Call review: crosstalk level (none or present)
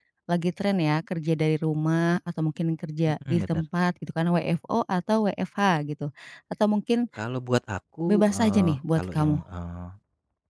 present